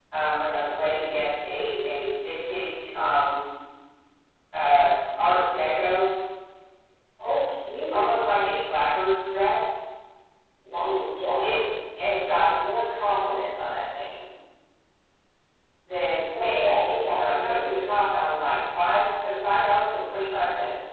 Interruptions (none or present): present